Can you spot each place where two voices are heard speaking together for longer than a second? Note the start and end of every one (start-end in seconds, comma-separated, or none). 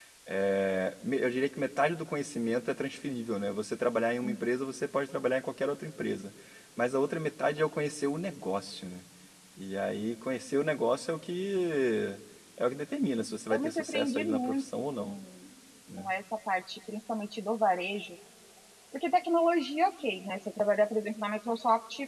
13.5-15.2